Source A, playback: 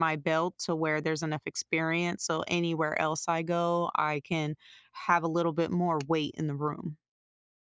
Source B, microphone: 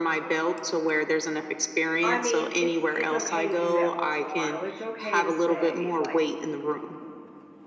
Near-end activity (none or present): present